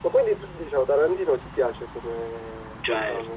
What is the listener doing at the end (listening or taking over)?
taking over